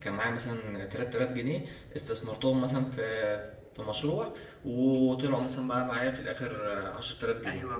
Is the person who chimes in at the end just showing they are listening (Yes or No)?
No